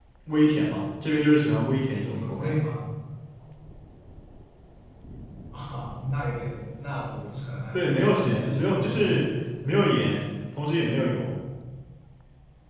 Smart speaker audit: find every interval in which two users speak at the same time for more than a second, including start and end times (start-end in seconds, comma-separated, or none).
7.7-9.2